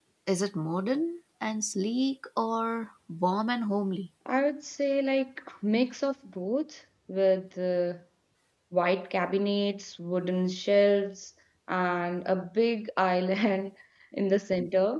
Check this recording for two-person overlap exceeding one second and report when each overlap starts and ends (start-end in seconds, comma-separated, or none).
none